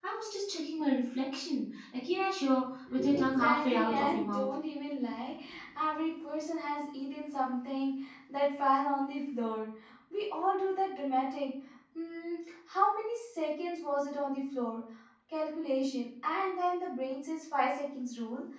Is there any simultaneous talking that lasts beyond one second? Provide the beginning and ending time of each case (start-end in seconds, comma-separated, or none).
3.1-4.4